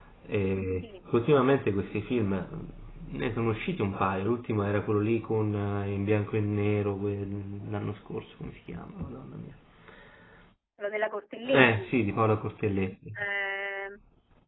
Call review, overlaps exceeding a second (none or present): none